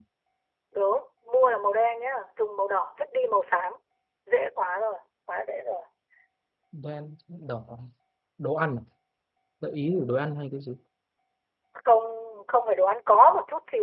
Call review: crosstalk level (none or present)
none